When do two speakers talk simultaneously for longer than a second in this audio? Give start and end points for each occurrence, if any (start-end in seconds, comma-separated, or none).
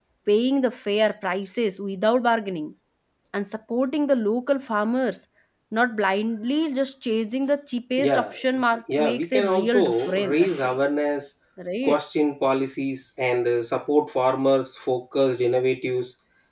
9.0-10.8